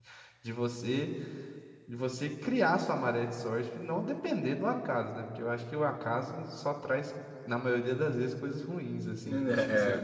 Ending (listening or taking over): taking over